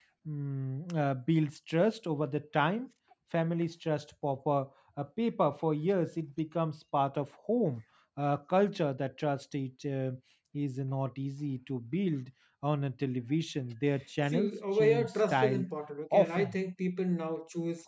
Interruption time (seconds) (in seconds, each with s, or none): 14.3 s